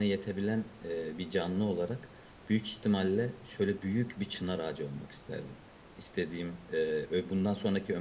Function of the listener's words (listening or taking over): listening